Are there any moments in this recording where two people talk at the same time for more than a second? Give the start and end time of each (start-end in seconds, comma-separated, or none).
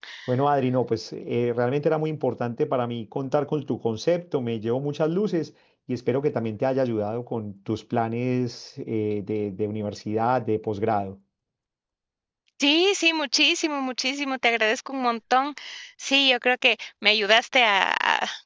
none